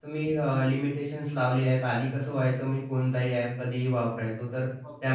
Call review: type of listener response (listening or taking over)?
listening